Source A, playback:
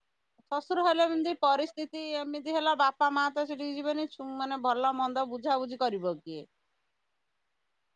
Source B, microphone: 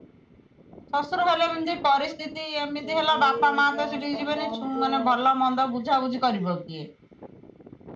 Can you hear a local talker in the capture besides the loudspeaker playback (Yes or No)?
Yes